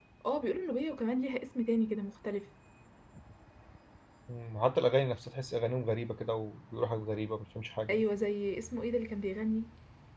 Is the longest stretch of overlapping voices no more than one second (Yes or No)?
Yes